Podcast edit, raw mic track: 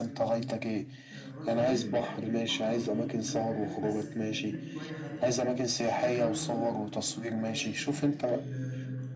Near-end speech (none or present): present